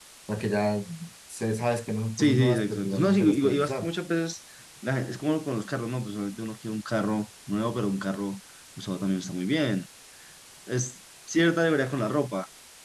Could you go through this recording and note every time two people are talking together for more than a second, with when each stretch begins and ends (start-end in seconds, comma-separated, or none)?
2.2-3.9